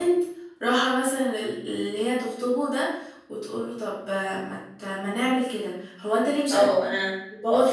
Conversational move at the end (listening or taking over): taking over